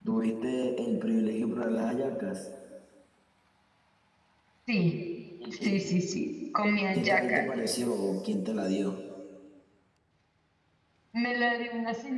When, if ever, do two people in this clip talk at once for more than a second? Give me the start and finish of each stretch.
none

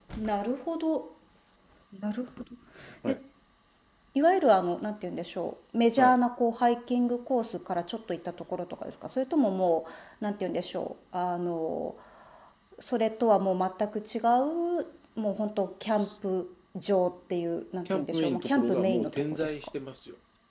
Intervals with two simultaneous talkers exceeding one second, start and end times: 17.8-19.7

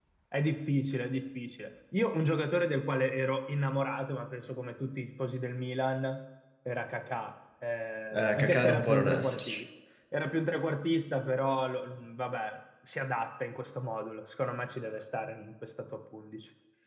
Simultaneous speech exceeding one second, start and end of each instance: 8.3-9.6

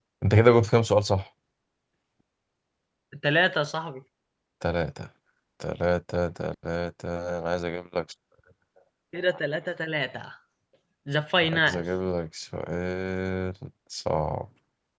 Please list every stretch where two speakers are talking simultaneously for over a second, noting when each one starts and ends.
none

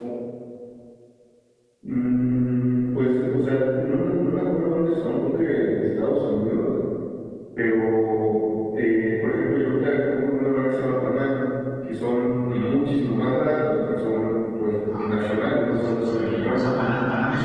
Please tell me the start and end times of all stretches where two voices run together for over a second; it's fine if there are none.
14.9-16.7

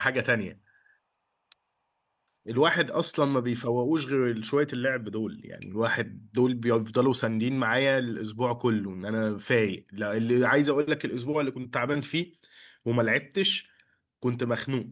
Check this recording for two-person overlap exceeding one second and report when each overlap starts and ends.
none

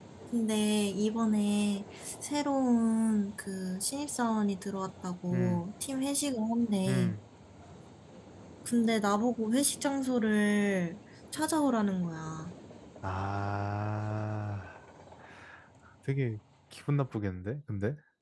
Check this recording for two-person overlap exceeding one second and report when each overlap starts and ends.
none

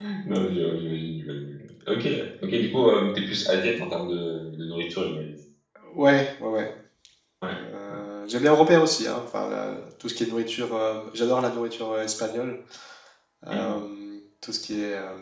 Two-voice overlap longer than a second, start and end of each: none

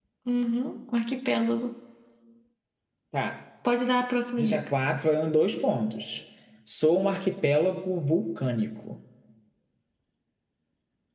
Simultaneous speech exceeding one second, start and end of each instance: none

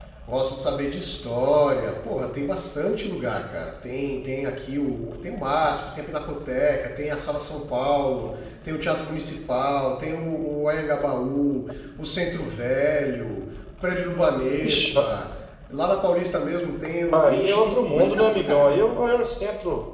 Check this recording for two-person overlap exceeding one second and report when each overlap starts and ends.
17.1-18.9

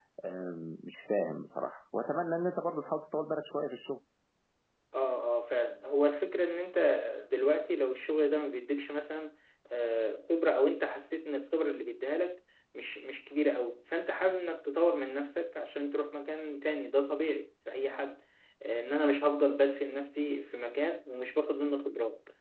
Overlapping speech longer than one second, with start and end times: none

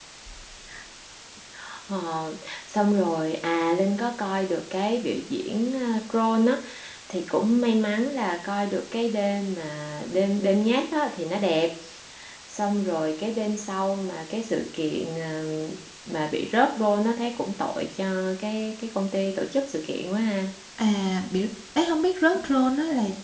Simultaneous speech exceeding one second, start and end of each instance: none

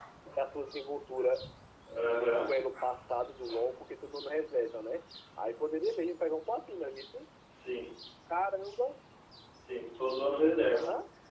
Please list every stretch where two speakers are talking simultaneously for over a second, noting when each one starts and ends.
none

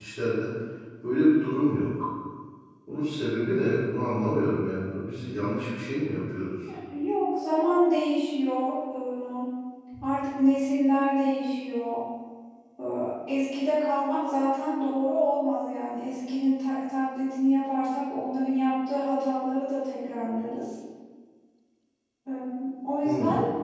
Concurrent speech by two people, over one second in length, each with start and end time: none

